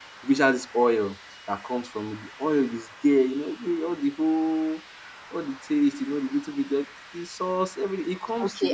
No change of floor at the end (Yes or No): No